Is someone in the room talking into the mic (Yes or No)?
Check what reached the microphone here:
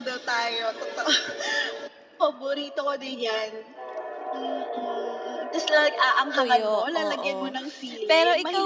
Yes